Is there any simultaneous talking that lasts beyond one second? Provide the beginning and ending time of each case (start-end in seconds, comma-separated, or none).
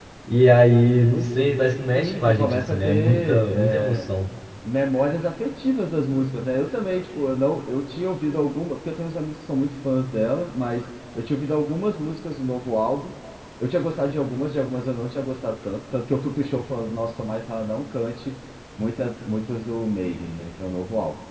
1.9-4.1